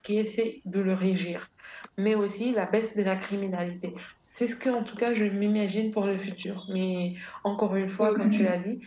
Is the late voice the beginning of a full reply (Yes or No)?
No